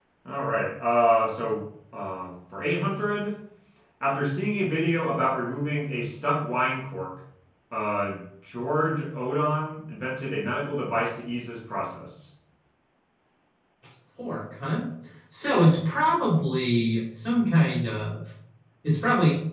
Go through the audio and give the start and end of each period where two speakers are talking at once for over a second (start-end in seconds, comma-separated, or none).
none